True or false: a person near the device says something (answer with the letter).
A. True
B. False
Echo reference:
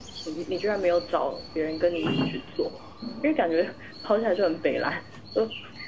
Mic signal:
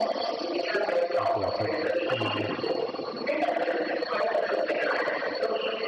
A